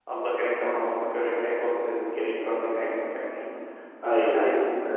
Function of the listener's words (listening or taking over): listening